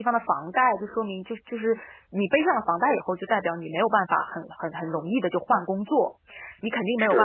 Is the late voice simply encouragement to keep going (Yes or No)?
Yes